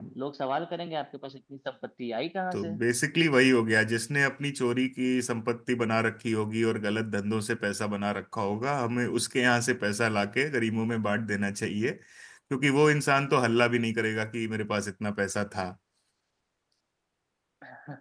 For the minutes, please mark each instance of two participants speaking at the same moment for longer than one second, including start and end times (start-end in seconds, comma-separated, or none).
none